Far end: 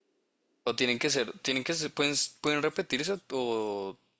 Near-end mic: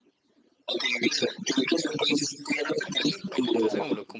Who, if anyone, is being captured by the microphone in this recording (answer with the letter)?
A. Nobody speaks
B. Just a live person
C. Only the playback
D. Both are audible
D